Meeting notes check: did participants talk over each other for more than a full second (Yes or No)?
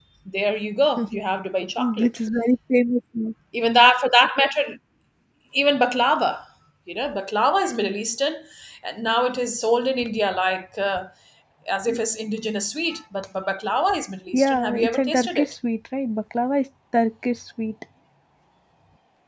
Yes